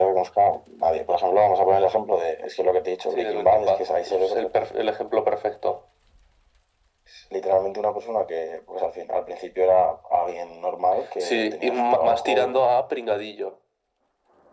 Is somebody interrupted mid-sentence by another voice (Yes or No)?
Yes